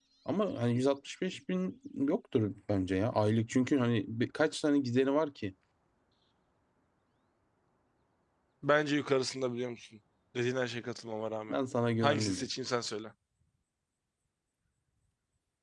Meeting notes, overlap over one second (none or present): none